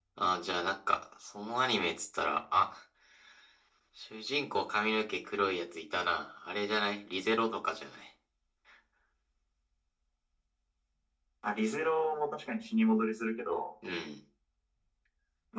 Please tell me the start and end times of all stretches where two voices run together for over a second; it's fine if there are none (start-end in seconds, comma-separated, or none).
none